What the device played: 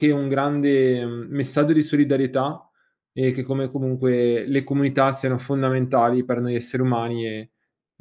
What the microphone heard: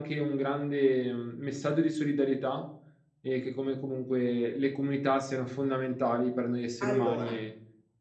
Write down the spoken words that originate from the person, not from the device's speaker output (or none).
Allora,